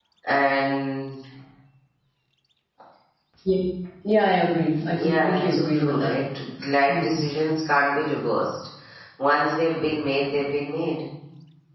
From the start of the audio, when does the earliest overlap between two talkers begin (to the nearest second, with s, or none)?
5 s